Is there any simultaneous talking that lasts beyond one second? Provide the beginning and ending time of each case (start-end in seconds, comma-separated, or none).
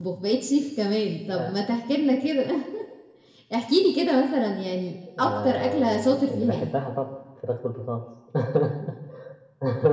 5.2-6.7